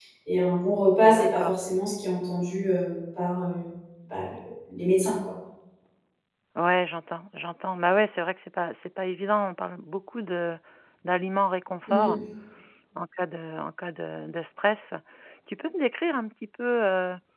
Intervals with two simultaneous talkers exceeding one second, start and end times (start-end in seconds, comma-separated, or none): none